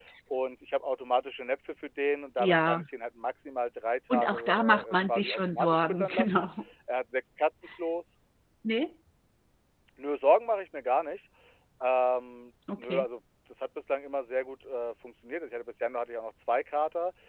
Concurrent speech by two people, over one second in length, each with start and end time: 4.1-6.5

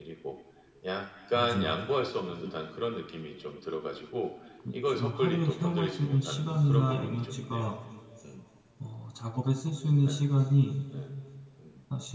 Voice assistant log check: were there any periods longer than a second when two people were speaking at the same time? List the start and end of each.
4.7-7.7

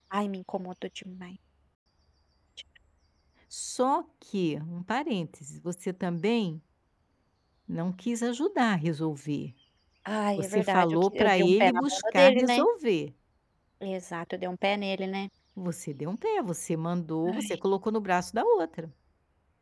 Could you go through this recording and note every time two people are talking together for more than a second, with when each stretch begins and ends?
10.4-12.6

